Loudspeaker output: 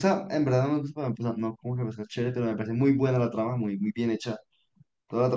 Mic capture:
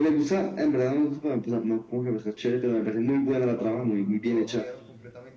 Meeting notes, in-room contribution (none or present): present